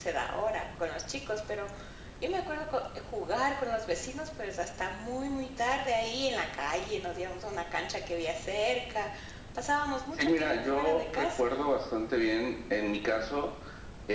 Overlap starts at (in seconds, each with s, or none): 10.2 s